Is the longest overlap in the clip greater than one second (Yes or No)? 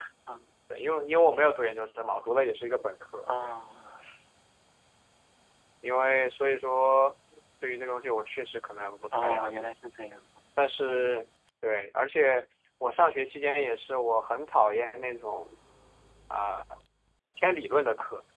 No